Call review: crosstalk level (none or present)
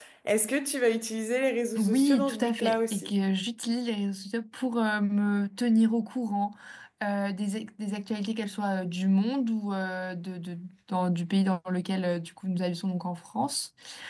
present